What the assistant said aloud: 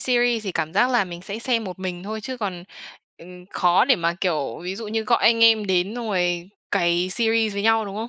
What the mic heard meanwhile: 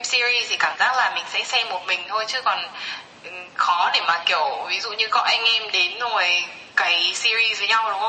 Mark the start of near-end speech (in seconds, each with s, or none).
none